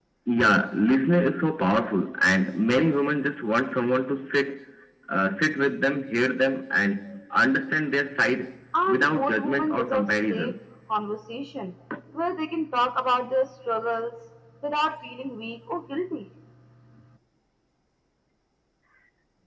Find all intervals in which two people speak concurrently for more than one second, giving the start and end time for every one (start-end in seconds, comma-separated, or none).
8.9-10.6